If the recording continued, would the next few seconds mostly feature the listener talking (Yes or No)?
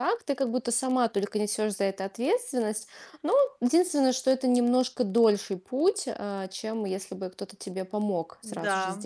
Yes